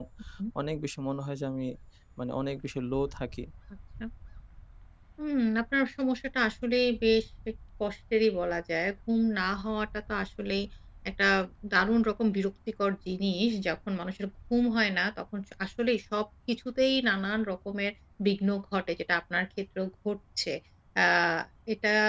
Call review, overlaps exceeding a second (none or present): none